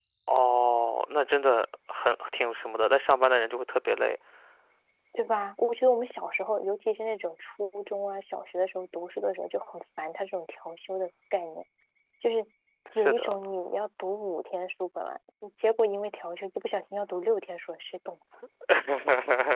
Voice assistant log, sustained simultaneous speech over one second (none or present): none